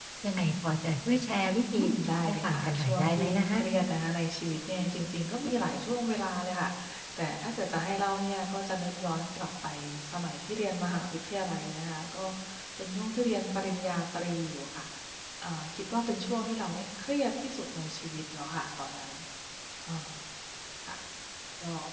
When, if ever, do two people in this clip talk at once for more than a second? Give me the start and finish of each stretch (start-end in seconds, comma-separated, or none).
2.3-3.6